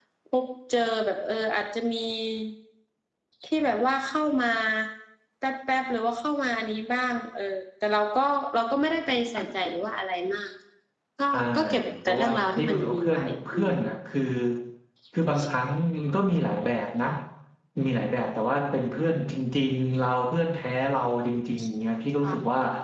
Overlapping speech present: Yes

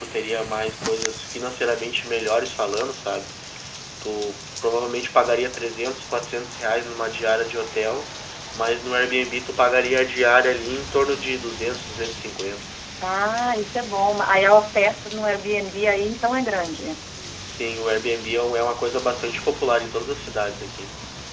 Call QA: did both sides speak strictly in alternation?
Yes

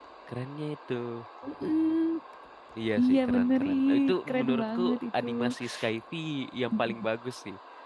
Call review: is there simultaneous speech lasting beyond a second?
Yes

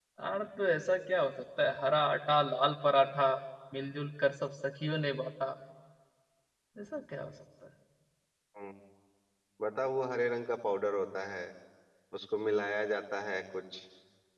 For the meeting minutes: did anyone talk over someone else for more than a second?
No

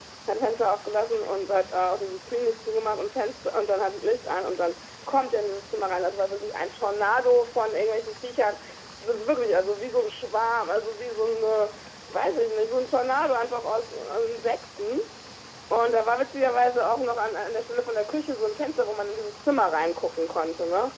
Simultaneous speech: No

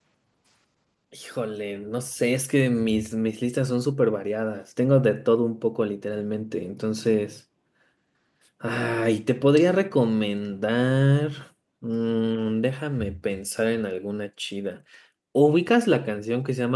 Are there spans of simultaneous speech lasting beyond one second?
No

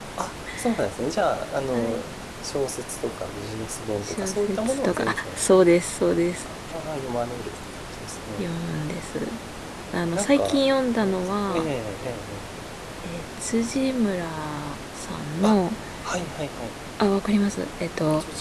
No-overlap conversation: No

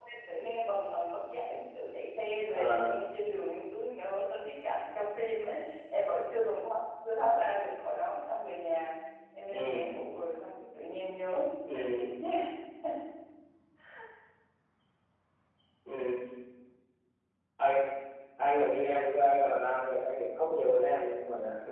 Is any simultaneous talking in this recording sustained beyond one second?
No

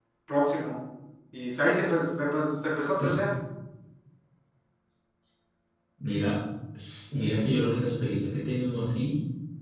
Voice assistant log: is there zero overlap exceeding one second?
Yes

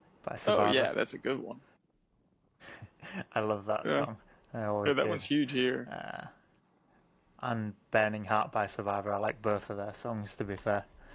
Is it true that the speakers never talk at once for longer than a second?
Yes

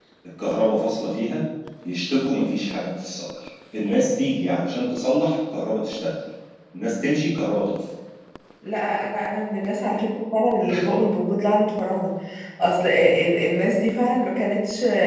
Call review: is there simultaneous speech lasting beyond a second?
No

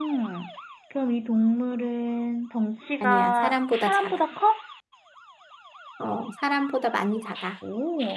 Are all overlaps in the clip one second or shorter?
No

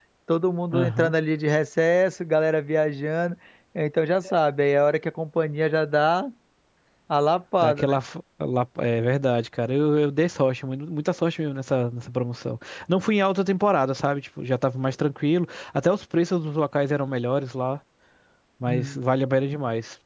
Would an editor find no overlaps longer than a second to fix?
Yes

